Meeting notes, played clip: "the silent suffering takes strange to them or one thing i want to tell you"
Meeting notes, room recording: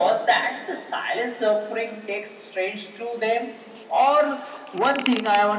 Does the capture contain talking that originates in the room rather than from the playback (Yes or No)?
No